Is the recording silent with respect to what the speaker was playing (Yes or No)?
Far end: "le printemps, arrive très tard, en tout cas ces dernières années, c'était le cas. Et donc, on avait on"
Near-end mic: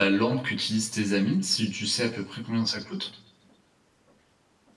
Yes